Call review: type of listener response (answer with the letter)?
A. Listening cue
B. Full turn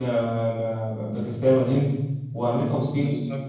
A